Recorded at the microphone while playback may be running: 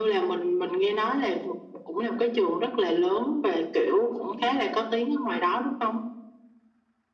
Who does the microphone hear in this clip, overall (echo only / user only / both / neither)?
echo only